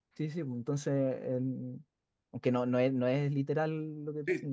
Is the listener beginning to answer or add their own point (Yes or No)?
Yes